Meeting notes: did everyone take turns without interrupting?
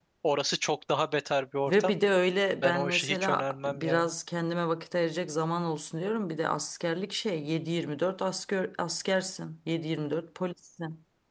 No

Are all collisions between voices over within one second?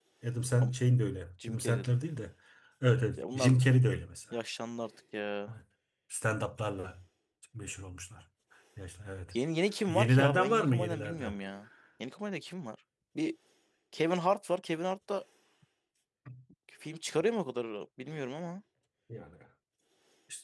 No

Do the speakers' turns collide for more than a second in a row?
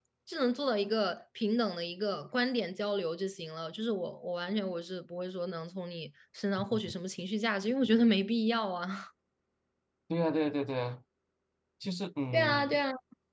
No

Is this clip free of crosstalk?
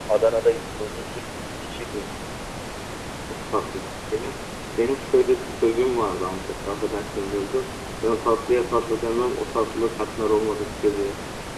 Yes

